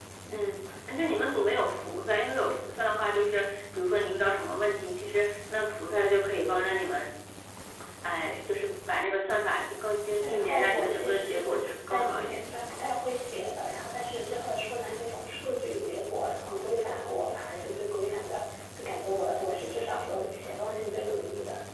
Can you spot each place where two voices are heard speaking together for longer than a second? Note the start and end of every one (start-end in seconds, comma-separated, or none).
10.1-12.4